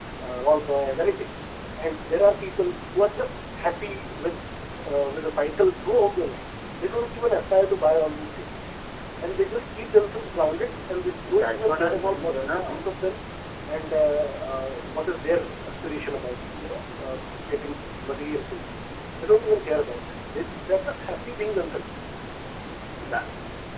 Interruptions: present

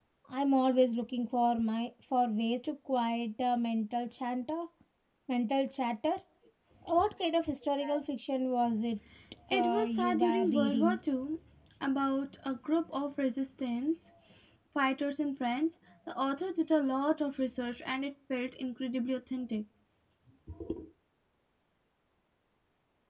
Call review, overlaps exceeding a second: present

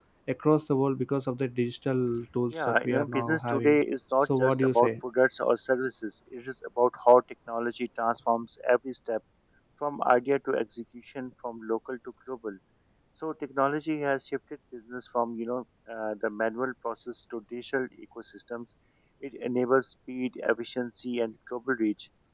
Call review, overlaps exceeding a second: present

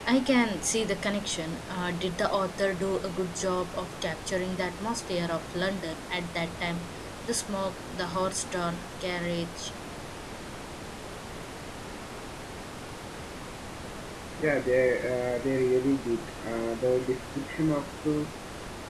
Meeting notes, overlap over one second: none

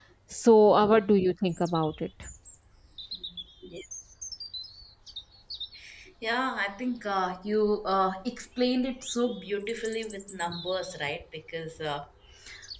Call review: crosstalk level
none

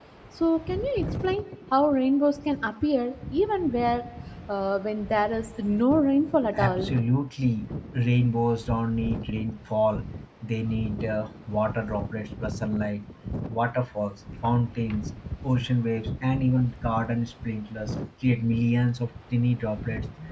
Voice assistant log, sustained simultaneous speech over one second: none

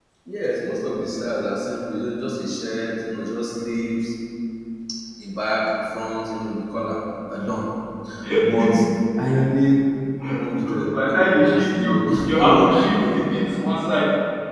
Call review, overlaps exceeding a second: present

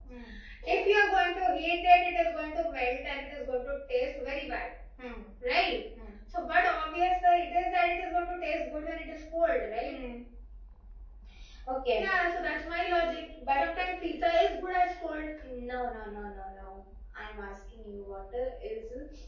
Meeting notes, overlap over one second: none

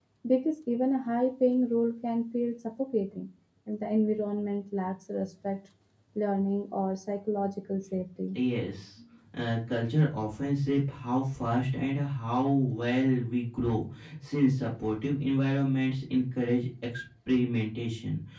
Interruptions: none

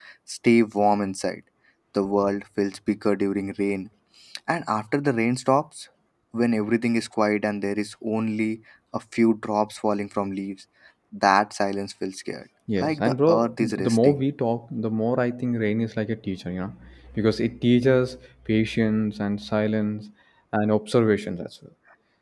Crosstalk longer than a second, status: present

